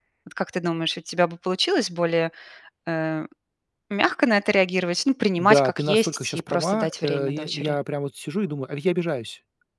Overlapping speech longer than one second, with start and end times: 5.4-7.8

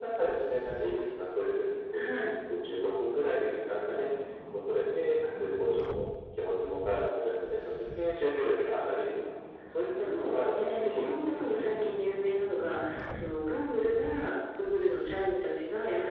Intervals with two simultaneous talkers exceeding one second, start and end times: 10.0-11.8

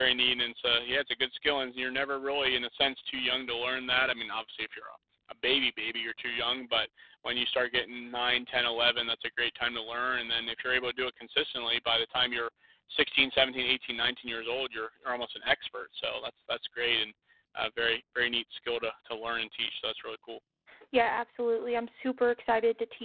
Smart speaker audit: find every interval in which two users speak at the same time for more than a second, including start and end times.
none

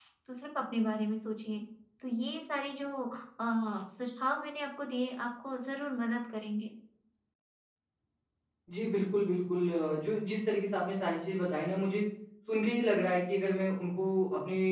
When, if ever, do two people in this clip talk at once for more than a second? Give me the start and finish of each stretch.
none

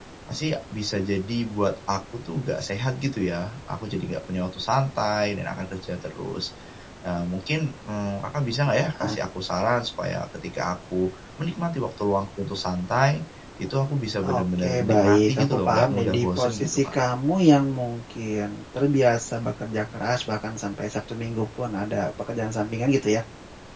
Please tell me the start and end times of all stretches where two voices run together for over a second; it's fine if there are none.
14.4-16.9

